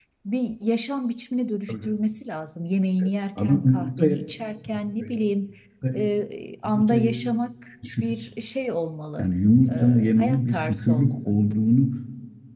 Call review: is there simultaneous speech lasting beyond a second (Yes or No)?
Yes